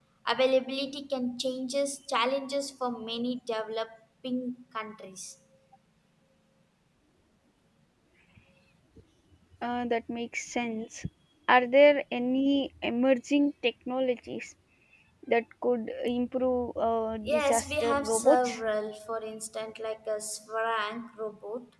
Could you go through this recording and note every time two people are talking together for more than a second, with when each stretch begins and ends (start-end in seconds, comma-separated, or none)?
17.3-18.6